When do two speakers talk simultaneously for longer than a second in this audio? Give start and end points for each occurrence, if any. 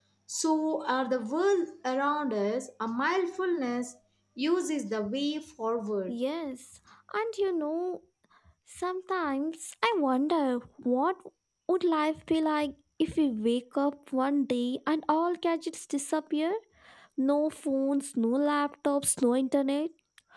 none

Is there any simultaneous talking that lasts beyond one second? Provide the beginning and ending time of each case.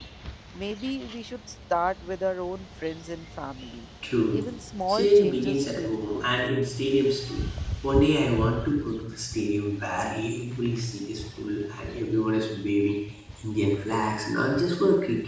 4.9-6.2

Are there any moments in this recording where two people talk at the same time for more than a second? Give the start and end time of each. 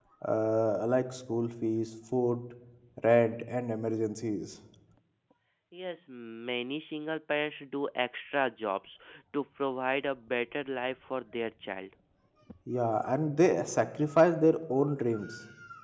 none

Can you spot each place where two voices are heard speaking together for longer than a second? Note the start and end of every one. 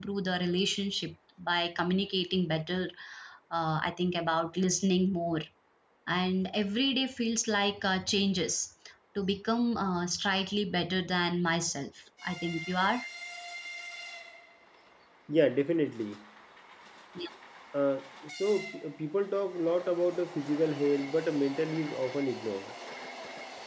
none

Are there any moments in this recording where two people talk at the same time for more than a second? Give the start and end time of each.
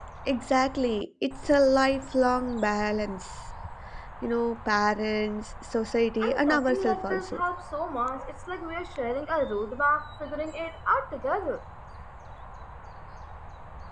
6.2-7.4

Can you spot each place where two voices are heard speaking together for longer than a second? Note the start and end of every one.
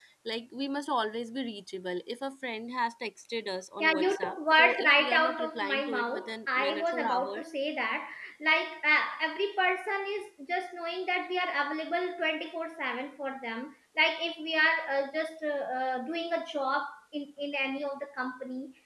3.8-7.5

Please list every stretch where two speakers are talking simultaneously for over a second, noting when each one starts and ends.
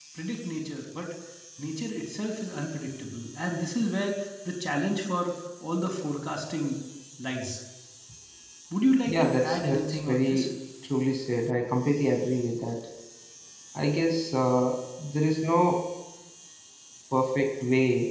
9.0-10.5

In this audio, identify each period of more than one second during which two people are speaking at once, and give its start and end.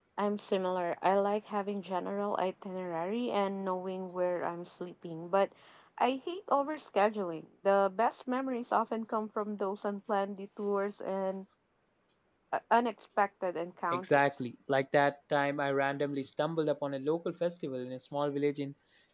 none

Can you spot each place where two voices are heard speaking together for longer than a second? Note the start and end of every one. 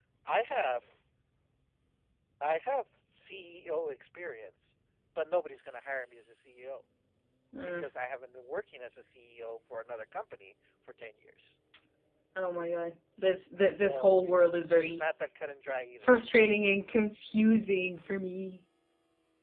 13.8-15.1

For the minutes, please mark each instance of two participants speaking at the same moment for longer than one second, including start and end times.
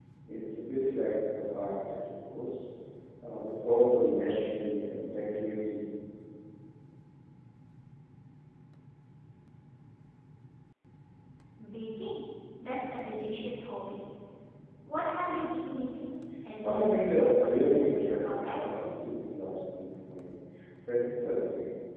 16.6-18.6

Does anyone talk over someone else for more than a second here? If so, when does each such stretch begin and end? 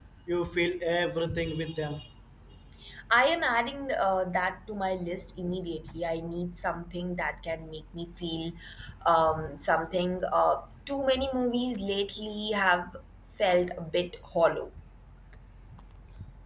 none

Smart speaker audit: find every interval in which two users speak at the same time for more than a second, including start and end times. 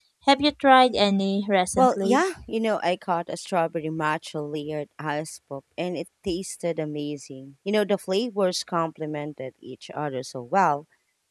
none

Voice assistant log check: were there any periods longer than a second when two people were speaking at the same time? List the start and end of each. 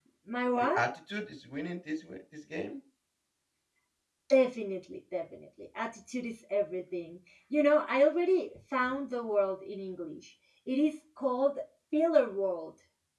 none

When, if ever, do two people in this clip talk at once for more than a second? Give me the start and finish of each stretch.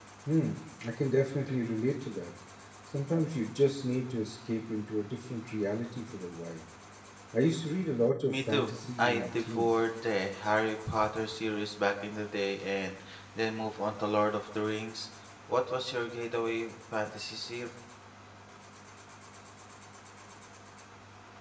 8.3-9.8

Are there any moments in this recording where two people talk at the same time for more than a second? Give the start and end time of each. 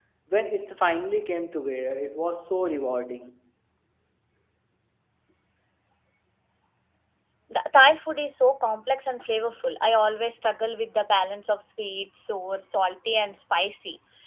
none

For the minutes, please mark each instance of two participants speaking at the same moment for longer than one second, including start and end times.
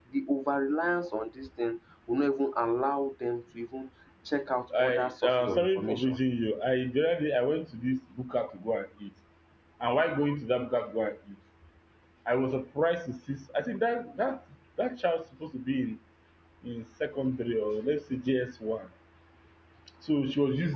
4.8-6.2

